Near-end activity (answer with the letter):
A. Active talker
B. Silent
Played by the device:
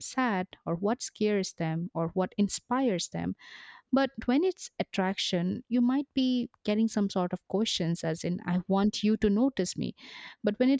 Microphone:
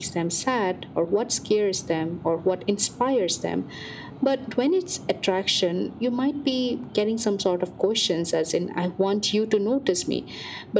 B